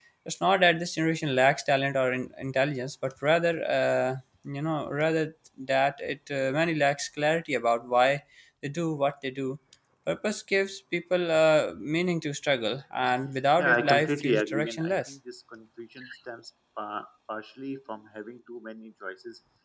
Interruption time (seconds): 13.6 s

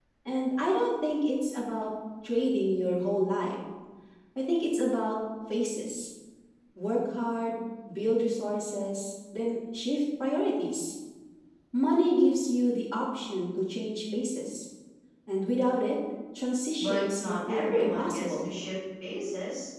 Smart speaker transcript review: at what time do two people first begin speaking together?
16.8 s

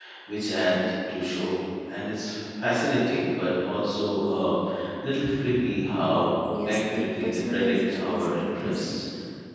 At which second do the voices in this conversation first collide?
6.5 s

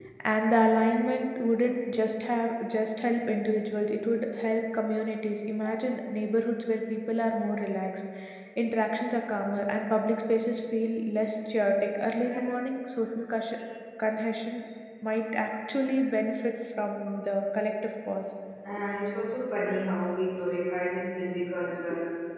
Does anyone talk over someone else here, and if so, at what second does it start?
none

